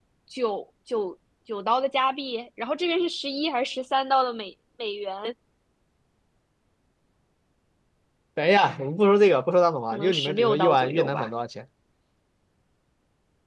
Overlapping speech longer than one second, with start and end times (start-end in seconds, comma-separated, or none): 9.9-11.3